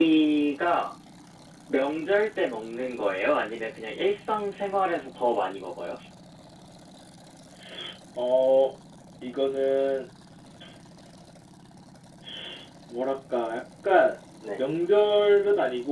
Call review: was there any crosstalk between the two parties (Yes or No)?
No